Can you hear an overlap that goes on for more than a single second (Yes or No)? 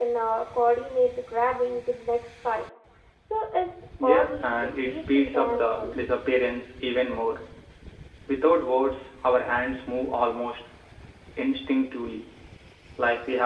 Yes